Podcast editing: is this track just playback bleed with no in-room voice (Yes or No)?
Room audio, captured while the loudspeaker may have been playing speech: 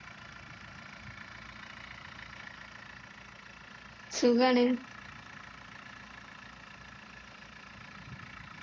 No